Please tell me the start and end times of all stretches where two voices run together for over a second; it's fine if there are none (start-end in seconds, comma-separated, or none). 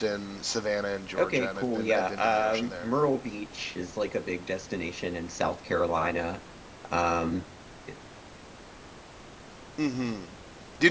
1.2-2.9